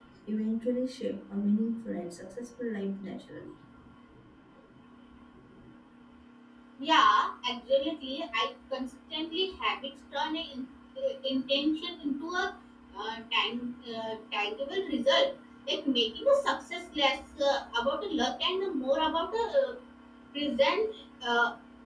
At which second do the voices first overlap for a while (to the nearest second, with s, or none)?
none